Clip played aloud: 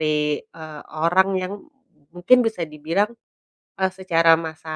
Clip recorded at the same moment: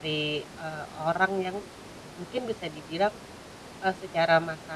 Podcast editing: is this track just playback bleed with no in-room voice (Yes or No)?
Yes